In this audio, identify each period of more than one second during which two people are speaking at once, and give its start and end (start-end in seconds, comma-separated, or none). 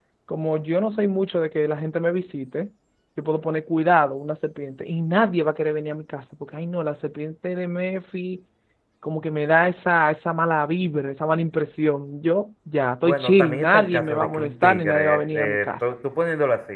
13.0-15.9